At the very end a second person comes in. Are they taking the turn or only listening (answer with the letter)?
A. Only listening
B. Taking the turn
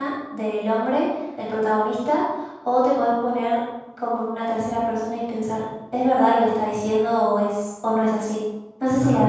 B